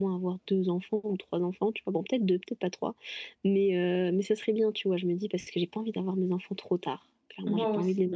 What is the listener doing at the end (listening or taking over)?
taking over